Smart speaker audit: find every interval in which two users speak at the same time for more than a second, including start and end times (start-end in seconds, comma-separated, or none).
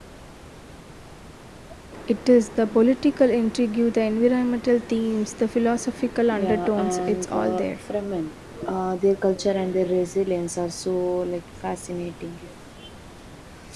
6.5-7.8